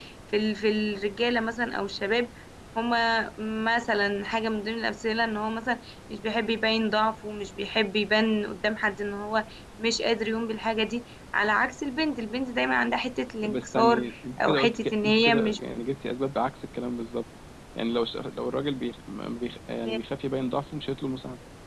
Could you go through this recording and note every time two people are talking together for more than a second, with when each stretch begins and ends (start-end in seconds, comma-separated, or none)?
13.4-15.6